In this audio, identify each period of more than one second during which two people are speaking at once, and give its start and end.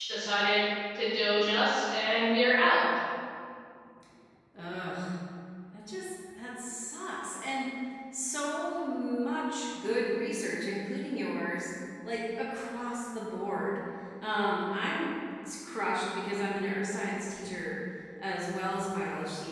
none

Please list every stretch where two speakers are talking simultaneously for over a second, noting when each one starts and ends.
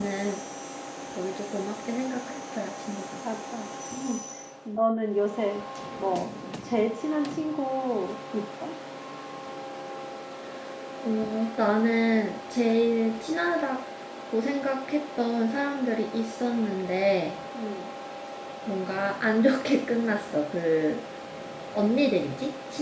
none

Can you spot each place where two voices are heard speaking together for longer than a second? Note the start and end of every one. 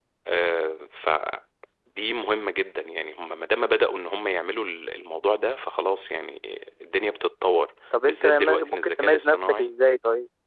8.0-9.7

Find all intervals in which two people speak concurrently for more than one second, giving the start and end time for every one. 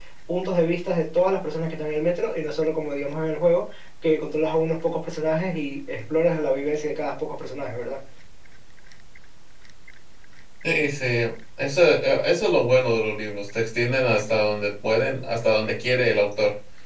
none

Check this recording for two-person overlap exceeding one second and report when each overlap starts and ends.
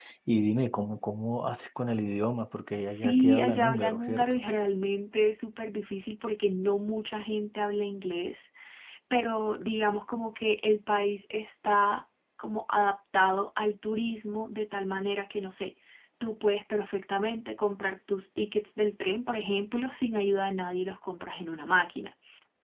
2.9-4.4

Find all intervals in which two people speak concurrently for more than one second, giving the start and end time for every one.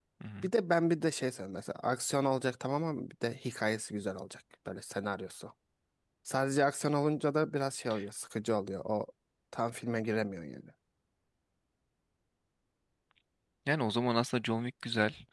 none

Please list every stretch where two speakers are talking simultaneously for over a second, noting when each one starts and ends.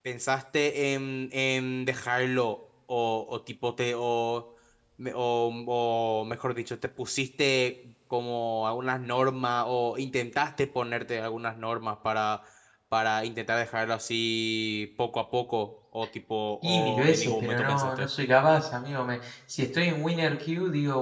16.6-18.1

